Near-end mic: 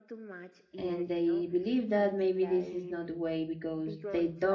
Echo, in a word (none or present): present